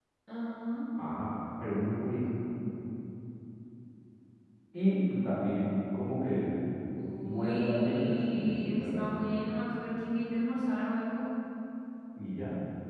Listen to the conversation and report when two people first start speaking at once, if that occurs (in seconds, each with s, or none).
7.2 s